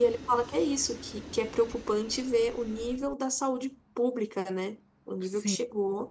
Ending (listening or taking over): listening